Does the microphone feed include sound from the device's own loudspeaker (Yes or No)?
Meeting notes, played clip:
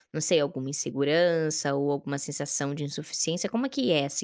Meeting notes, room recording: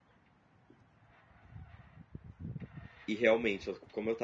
No